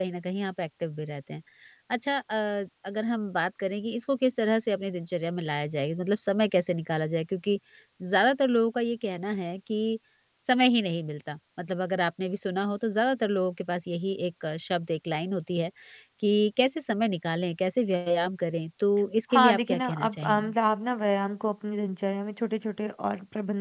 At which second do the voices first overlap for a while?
19.3 s

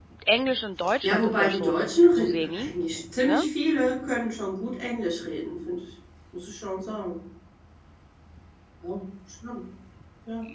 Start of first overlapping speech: 1.0 s

